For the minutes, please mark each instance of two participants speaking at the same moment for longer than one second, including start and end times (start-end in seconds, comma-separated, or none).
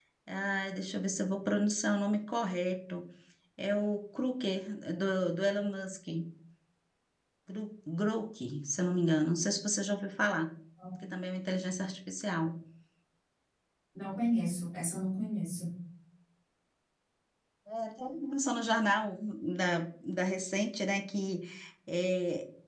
none